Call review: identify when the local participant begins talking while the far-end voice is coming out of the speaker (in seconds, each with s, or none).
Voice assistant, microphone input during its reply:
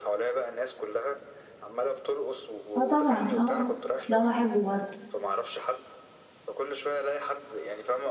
2.8 s